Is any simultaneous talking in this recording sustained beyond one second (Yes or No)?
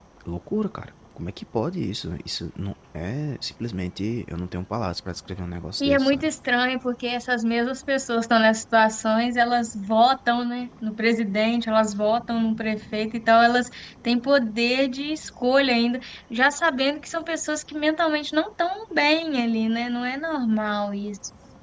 No